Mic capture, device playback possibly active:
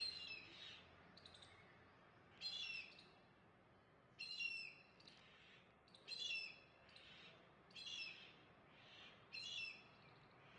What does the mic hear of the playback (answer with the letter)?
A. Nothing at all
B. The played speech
A